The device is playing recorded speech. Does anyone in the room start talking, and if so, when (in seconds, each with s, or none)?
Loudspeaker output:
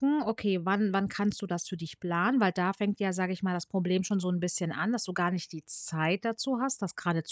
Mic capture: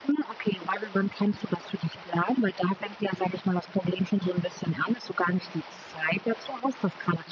none